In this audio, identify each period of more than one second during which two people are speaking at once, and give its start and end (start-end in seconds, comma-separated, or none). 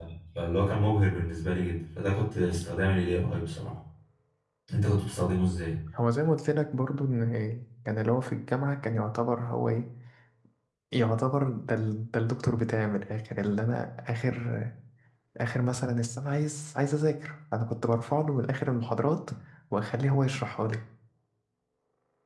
none